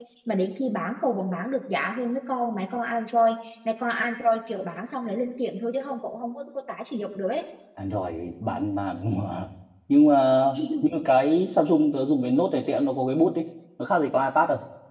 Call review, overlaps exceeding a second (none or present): none